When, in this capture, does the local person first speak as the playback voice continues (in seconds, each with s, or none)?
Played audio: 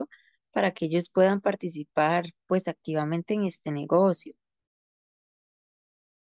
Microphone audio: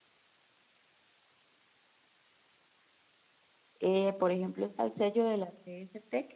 3.8 s